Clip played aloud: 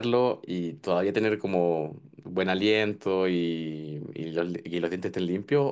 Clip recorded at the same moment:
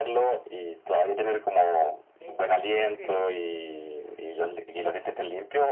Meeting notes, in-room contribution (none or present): present